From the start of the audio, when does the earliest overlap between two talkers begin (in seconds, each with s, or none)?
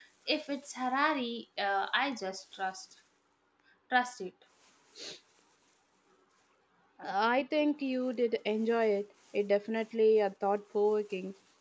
none